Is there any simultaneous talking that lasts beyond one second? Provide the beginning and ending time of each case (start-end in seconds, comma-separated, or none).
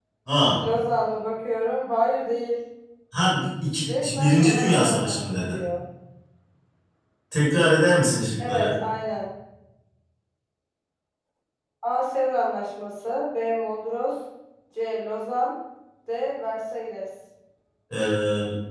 4.0-5.6